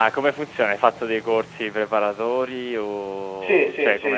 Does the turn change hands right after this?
Yes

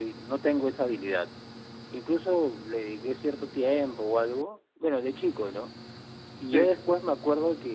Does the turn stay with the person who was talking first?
Yes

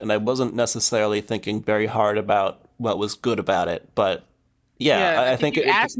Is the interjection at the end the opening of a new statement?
Yes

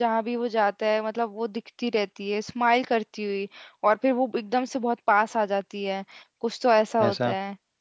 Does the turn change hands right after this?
No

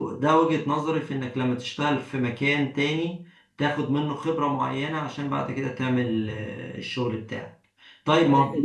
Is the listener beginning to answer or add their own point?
No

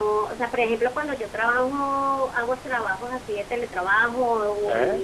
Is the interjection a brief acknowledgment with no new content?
Yes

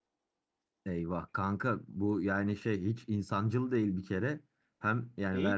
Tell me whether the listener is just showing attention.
Yes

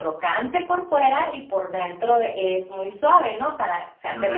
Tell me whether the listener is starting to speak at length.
No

